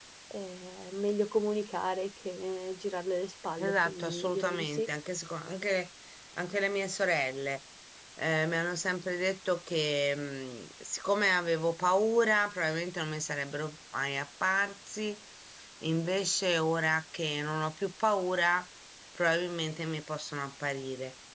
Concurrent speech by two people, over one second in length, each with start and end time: 3.6-4.8

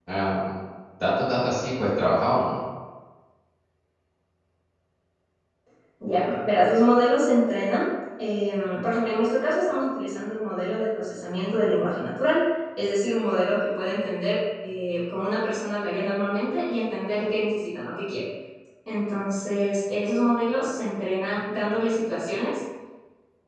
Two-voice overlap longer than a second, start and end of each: none

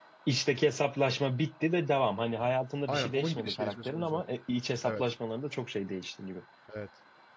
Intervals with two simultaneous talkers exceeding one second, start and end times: 2.9-4.2

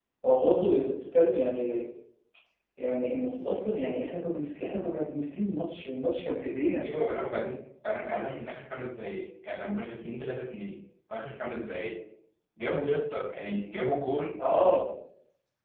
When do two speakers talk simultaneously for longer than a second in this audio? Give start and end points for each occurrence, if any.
none

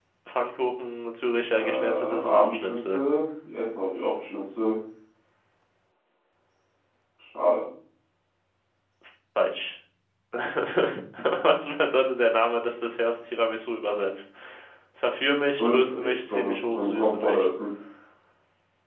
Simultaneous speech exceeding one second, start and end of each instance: 1.5-3.0, 15.6-17.5

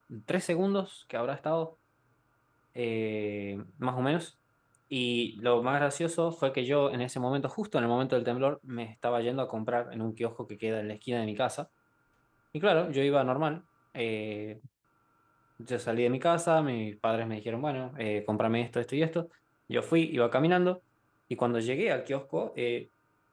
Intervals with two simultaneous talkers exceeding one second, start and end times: none

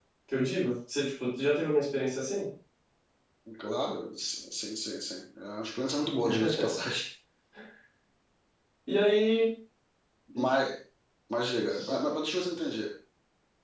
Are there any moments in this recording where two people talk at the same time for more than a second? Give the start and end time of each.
none

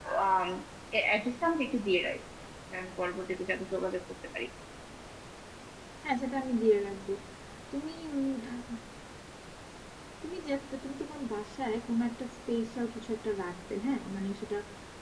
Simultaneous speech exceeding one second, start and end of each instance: none

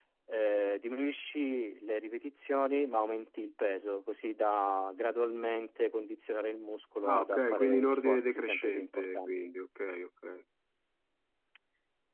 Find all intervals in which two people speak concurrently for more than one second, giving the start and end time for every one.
7.0-9.3

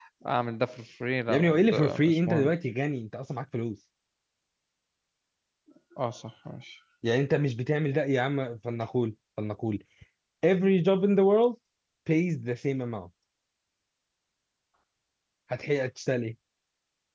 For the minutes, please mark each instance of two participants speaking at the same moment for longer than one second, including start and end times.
1.3-2.5

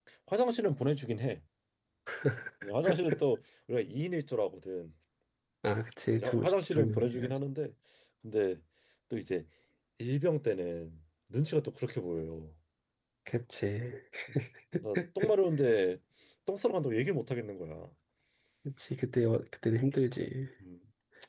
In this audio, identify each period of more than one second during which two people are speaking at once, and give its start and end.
6.1-7.3

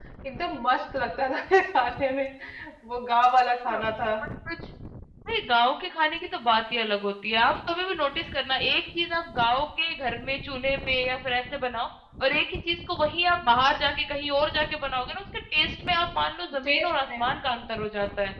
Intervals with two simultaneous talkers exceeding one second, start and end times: none

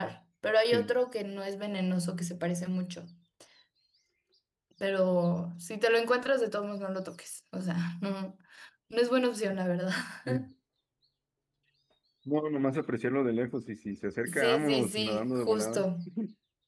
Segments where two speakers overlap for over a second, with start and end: 14.3-15.8

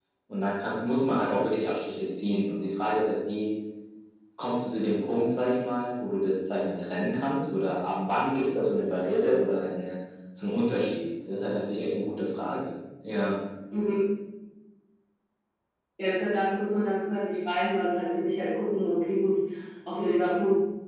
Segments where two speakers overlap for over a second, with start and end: none

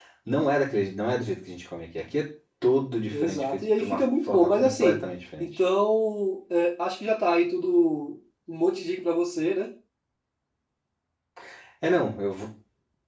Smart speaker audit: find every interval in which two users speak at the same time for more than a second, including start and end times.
3.1-5.0

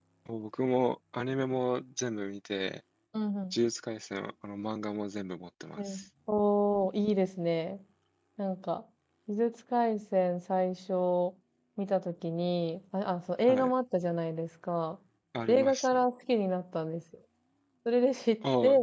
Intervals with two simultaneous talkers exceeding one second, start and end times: none

